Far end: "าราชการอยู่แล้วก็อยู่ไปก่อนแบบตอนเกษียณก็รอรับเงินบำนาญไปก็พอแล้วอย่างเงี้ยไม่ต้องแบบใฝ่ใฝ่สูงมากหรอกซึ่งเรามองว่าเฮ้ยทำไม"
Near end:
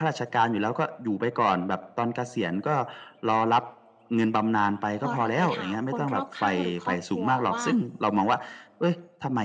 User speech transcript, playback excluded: พอเราไปถามคนรอบข้างหรือครอบครัวว่า

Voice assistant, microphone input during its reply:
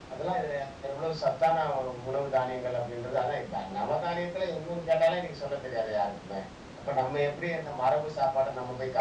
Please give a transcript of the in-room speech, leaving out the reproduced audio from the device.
none

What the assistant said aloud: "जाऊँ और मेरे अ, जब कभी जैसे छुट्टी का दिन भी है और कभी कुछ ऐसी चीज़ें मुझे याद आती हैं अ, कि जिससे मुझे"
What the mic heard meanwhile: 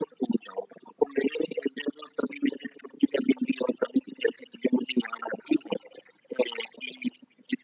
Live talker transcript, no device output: none

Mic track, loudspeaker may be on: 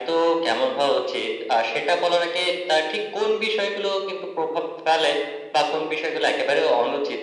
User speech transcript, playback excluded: none

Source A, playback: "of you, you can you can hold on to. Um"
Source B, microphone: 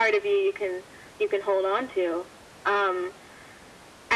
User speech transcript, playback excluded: none

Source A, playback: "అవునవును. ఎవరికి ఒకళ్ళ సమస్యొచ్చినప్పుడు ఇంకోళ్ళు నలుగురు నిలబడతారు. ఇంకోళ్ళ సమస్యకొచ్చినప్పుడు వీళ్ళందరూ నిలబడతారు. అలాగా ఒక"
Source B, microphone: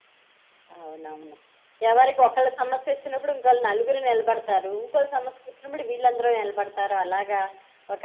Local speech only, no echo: none

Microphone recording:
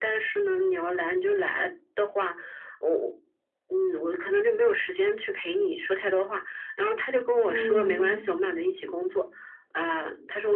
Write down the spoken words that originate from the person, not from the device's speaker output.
嗯，

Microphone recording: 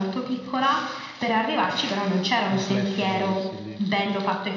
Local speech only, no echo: complesso muoversi lì.

